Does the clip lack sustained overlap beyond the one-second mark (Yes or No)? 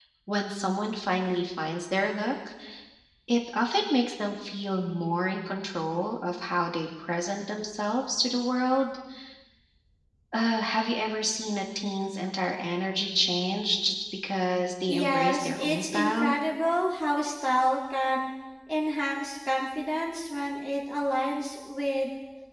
No